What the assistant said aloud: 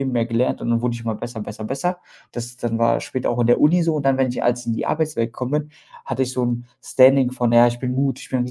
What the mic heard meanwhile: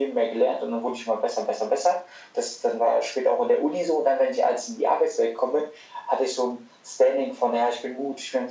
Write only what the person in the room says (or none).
none